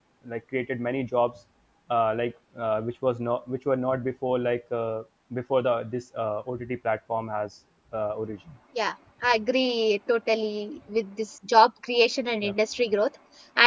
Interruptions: none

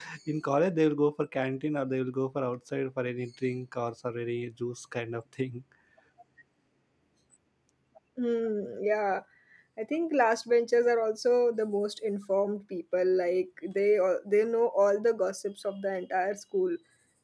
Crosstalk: none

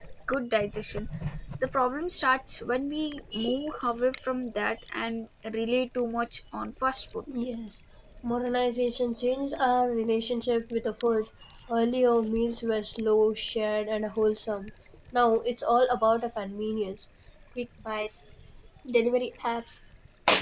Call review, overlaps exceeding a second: none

